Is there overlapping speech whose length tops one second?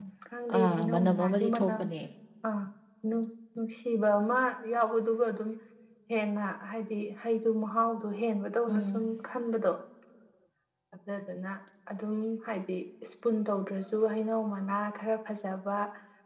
Yes, from 0.6 s

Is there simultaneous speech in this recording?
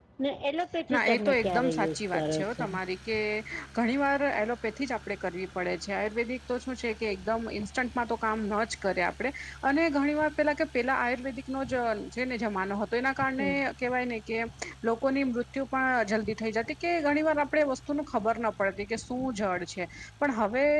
Yes, from 0.9 s

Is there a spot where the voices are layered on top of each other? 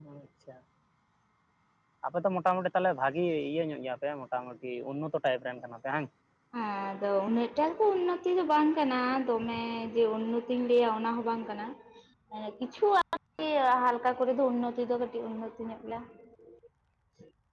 No

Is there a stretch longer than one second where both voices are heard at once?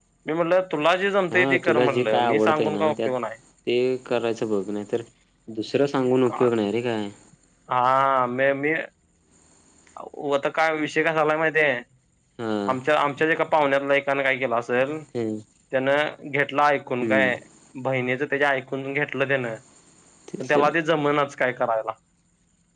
Yes, from 1.3 s

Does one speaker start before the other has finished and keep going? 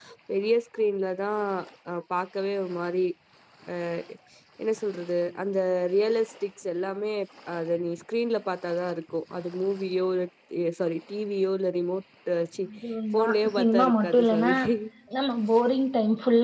Yes, from 13.1 s

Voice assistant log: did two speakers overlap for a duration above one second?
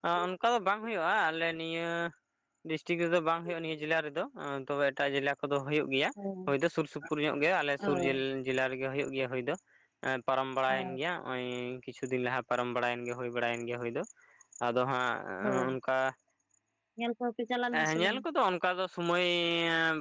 No

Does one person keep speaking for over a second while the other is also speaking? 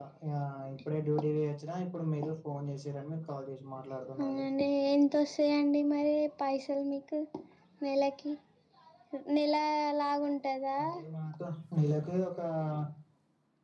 No

